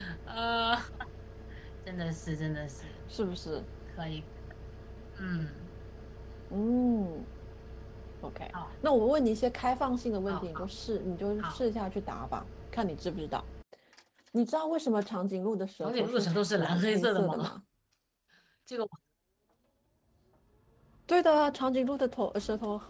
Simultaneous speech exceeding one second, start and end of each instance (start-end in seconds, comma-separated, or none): 15.8-17.3